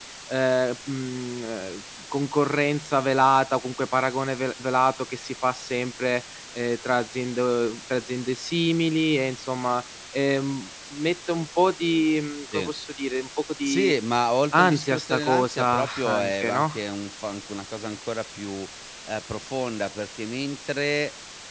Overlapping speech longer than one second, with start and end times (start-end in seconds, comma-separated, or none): 14.5-16.7